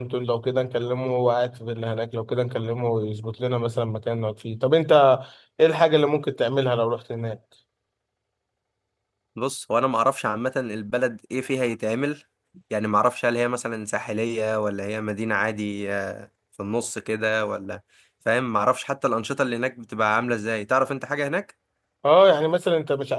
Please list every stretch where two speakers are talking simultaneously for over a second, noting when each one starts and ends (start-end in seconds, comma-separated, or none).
none